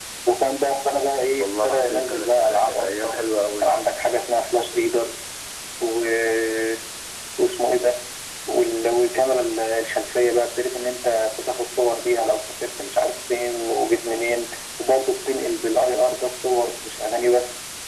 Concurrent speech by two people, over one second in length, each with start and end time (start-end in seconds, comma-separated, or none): 1.4-3.2